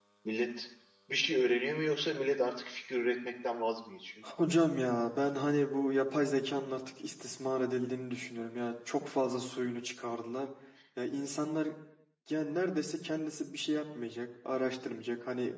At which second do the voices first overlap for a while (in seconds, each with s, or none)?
none